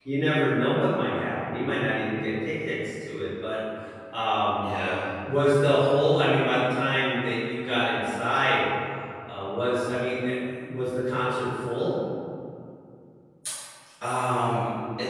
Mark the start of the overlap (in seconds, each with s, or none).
none